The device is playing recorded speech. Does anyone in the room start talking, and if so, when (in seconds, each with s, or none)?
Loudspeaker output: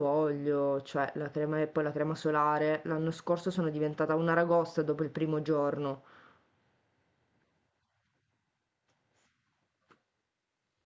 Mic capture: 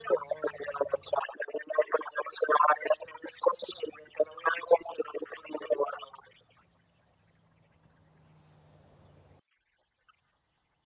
none